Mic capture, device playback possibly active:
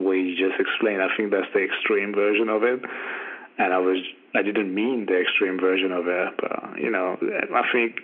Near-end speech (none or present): none